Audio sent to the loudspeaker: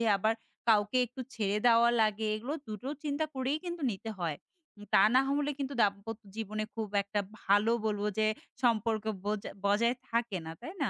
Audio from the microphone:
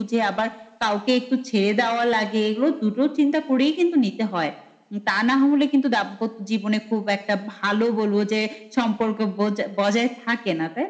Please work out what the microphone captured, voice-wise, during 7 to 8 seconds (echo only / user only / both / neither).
echo only